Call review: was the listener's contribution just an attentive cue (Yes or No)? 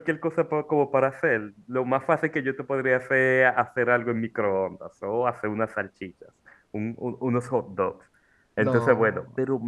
Yes